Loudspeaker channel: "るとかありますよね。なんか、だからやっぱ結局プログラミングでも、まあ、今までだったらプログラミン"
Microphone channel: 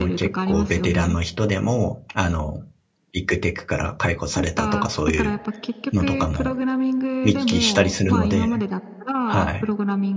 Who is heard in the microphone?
both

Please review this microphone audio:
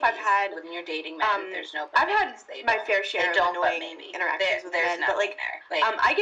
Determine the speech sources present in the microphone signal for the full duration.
echo only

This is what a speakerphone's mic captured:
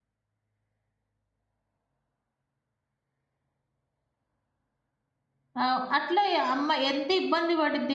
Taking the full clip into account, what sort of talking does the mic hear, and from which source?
user only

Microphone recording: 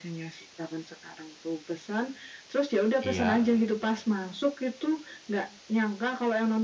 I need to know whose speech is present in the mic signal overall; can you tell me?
both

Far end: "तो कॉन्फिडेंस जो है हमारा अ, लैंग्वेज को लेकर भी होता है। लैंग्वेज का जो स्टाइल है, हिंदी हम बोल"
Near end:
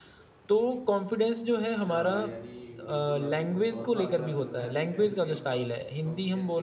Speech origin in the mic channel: both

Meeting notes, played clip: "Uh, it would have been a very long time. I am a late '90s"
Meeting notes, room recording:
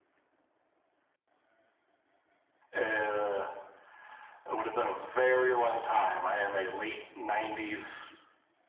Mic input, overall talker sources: echo only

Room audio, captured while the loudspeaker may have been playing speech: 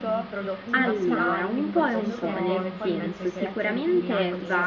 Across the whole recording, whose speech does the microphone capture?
both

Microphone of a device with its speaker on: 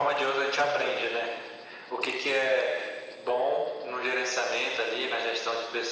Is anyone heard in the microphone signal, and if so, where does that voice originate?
echo only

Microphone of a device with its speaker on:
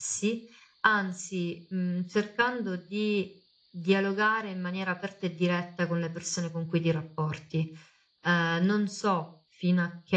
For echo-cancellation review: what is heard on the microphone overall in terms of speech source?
user only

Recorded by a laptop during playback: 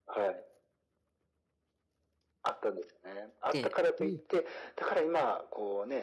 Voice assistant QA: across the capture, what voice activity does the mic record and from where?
both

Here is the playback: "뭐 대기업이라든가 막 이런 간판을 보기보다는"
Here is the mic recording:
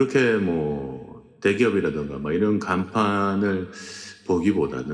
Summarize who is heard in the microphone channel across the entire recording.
echo only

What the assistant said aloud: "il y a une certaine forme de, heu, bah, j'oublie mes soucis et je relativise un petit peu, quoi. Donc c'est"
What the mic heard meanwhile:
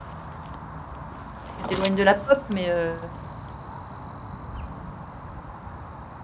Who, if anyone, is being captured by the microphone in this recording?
user only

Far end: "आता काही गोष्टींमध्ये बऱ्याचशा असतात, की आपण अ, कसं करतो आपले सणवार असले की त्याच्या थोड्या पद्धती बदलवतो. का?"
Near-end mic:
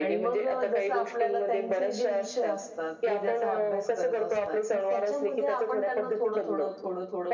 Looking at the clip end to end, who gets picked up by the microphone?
both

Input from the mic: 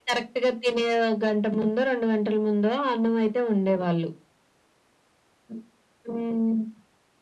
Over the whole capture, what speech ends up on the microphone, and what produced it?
echo only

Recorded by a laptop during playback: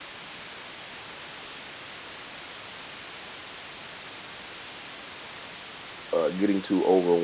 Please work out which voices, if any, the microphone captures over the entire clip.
user only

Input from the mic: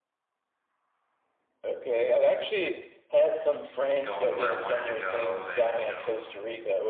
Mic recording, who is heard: both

